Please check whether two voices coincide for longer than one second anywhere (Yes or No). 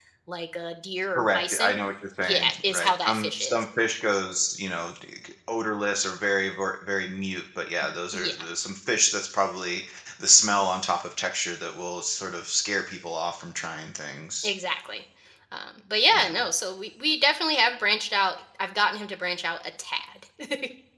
Yes